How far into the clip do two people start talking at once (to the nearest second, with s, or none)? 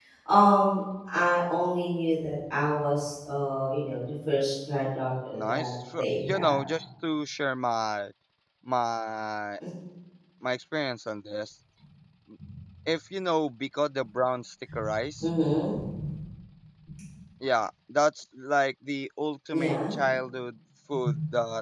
5 s